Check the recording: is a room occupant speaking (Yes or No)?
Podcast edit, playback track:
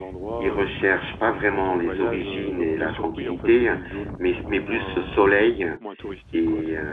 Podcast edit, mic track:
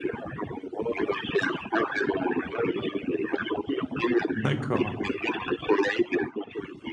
Yes